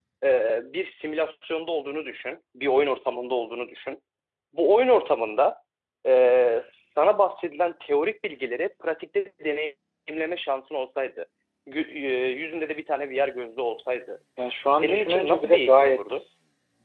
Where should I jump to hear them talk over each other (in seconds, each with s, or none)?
14.8 s